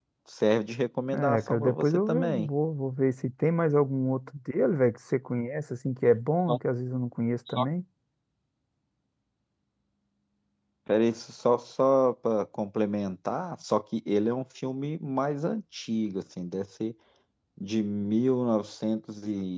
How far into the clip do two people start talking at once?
1.1 s

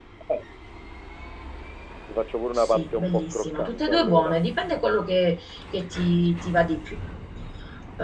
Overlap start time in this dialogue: 2.5 s

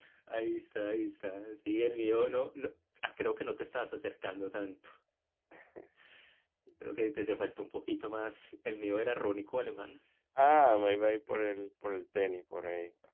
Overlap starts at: none

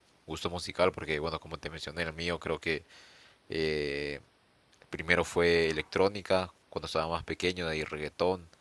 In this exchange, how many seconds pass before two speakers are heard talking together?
none

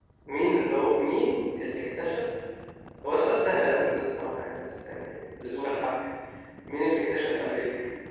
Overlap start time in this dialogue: none

